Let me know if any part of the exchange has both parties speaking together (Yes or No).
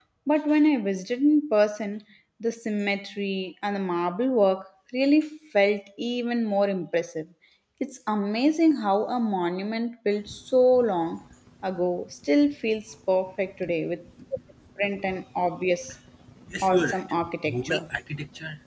Yes